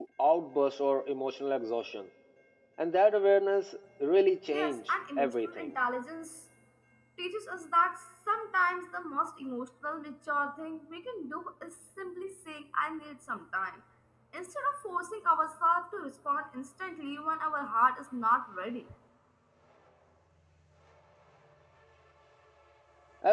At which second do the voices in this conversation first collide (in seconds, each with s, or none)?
4.5 s